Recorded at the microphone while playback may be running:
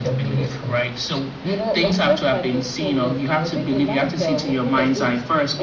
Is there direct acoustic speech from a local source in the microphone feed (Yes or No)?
No